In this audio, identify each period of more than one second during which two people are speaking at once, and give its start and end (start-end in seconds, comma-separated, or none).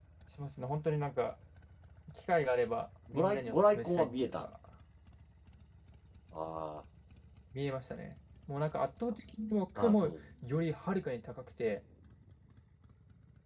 3.1-4.4